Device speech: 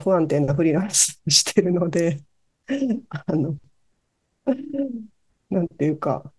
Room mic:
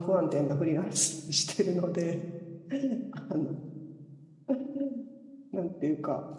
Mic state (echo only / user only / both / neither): echo only